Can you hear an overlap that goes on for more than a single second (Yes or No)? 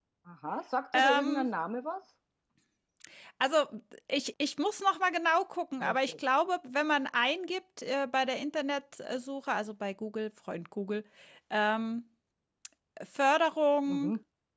No